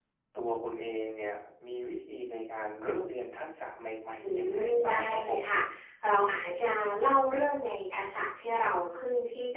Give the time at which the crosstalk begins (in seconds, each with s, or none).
4.2 s